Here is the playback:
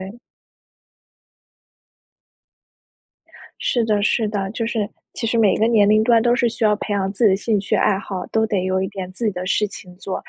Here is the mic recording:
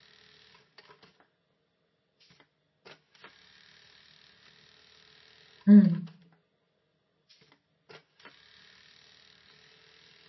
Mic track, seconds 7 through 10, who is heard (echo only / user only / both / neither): neither